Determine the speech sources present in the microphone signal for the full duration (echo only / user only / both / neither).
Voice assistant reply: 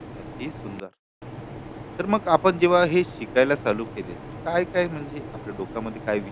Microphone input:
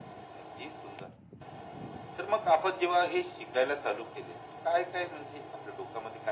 echo only